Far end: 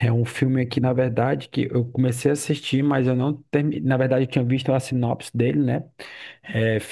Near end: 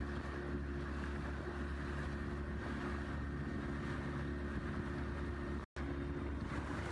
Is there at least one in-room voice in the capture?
No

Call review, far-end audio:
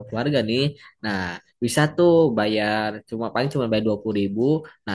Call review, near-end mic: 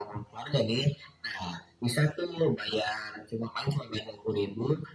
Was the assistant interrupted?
No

